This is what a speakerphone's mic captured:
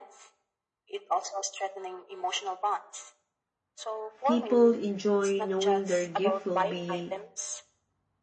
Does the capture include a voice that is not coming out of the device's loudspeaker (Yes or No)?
Yes